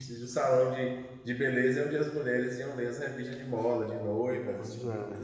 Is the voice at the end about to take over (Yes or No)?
Yes